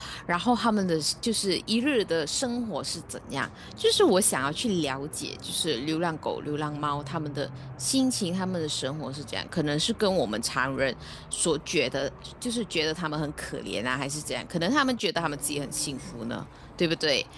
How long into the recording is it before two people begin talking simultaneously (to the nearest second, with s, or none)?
none